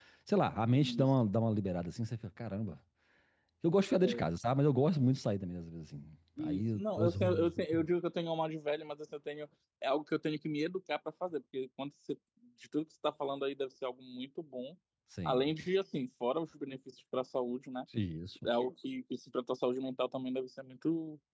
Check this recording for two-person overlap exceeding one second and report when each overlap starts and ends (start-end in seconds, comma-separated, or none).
6.4-7.6